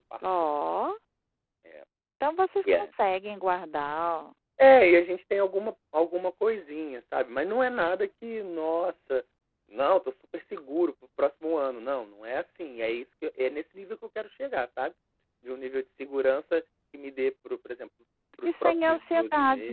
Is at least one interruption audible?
Yes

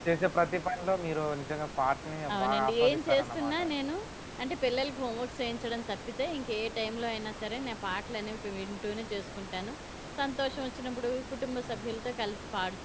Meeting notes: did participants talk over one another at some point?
Yes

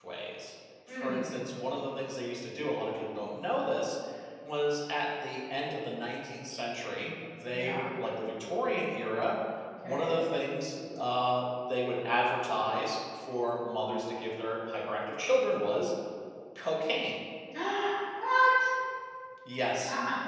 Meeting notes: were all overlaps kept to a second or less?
Yes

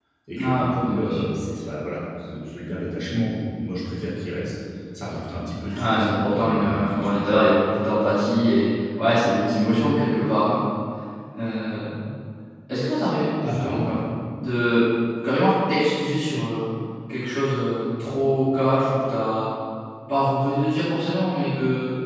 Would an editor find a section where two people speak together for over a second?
Yes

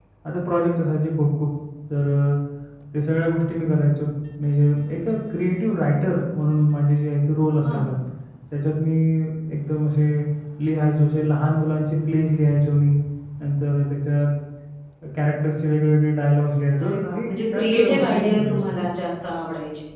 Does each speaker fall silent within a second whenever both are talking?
No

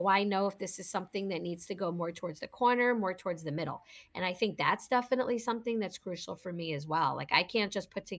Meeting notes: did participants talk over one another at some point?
No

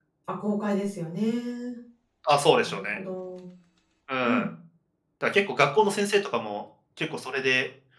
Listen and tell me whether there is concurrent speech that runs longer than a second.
No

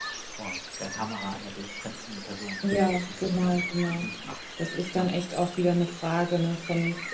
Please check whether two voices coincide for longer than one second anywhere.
Yes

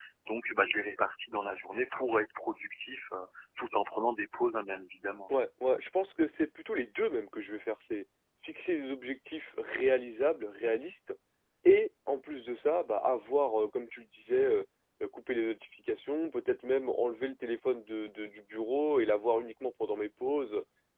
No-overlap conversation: Yes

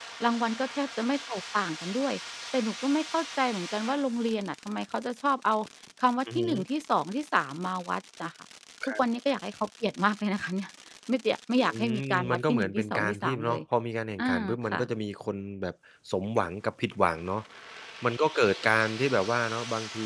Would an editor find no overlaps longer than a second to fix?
No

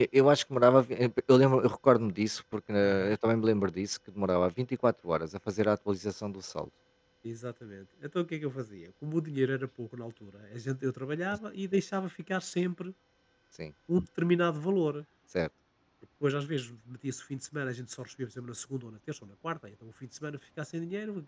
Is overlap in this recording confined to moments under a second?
Yes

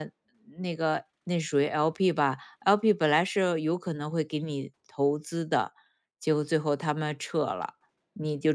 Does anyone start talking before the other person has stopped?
No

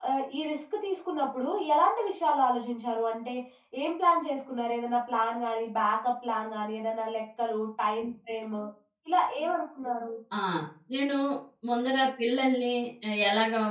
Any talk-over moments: No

